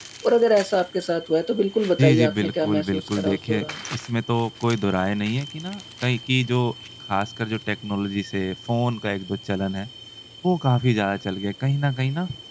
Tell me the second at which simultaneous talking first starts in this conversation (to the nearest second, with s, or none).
2 s